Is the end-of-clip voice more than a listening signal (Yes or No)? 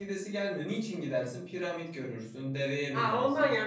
Yes